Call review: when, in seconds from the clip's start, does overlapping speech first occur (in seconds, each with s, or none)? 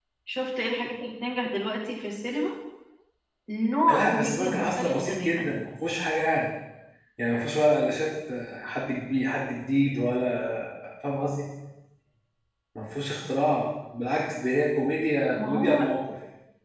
3.9 s